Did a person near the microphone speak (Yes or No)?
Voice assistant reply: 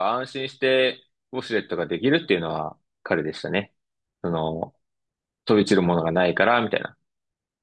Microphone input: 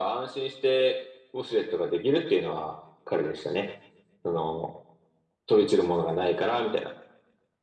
No